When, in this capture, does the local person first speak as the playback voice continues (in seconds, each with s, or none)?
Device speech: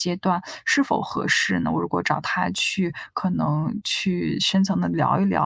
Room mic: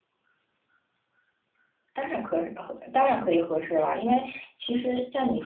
1.9 s